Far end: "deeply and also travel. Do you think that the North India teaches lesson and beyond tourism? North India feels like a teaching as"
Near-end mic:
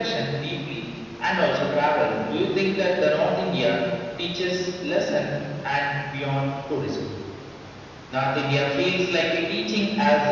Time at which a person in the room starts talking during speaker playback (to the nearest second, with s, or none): none